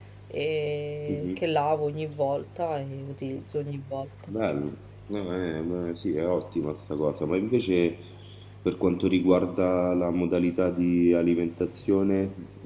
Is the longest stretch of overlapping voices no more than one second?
Yes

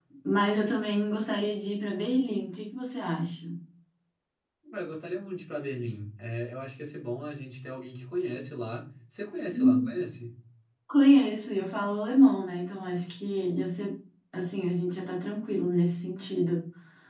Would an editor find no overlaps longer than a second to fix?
Yes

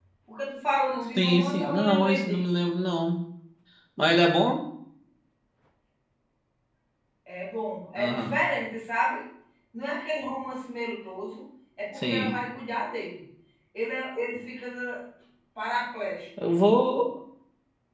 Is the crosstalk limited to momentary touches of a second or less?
No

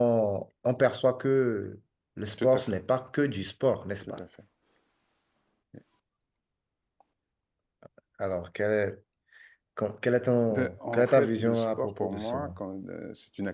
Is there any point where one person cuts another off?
Yes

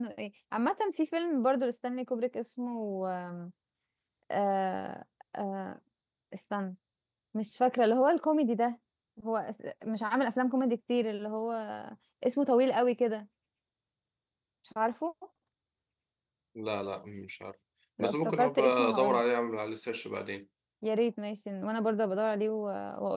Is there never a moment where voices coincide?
No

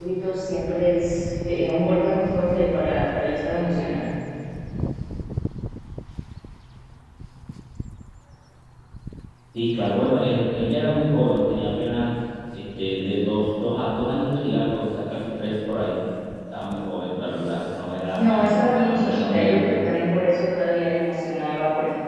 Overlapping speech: Yes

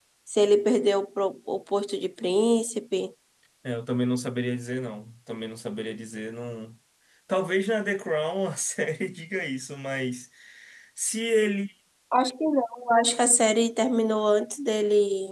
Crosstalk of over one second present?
No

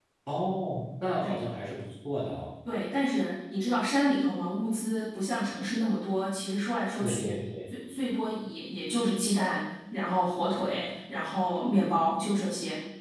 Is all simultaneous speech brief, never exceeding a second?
Yes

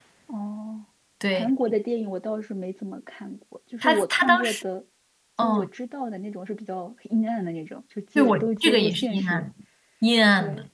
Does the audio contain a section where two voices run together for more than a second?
Yes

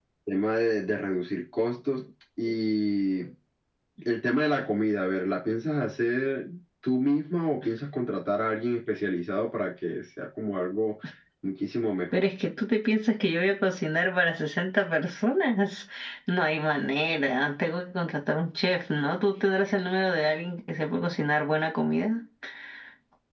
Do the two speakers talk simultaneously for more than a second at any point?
No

